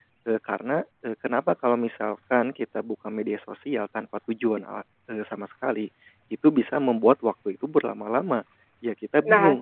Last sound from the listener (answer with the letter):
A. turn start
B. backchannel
A